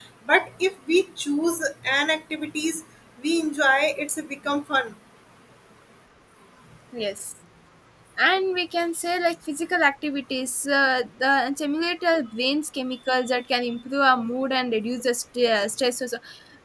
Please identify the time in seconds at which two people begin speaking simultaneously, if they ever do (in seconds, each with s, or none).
none